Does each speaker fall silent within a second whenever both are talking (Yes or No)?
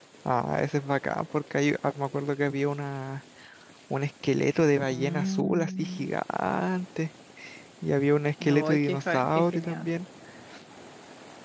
No